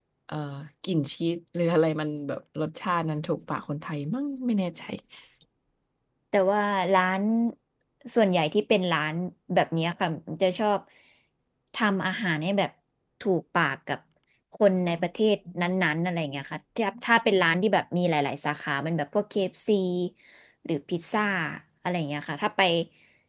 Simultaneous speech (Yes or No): No